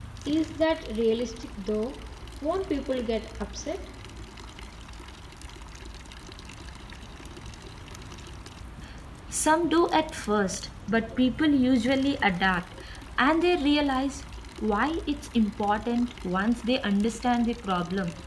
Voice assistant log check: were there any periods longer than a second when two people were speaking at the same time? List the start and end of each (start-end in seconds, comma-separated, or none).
none